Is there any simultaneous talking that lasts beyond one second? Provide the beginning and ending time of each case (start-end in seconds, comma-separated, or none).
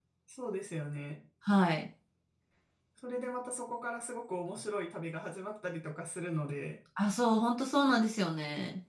none